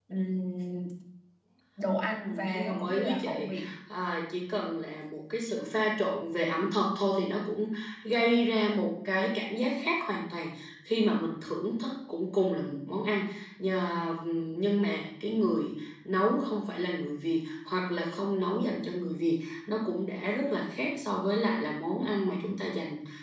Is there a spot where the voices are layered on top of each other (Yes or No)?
Yes